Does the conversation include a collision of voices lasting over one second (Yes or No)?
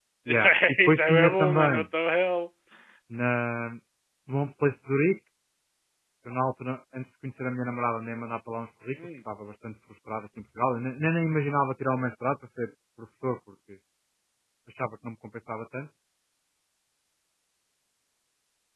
Yes